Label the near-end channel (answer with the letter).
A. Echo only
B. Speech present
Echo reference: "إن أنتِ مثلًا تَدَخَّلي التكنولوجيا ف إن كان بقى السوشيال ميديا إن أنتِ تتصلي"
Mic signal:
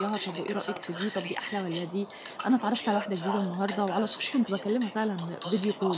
B